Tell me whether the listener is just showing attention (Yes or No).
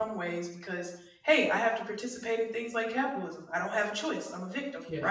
Yes